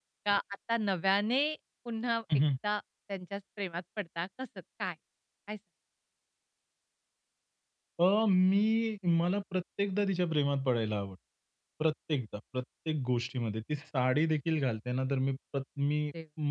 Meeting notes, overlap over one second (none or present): none